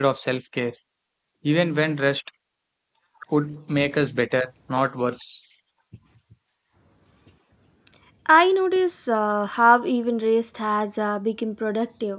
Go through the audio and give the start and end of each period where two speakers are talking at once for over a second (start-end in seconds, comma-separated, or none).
none